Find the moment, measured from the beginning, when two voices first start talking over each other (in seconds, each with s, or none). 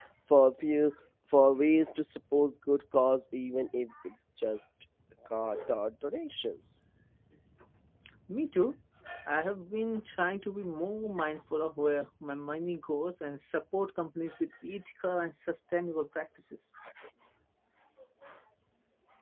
none